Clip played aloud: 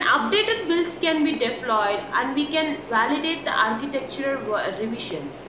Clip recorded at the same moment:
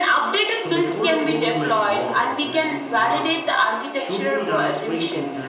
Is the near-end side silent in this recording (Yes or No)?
No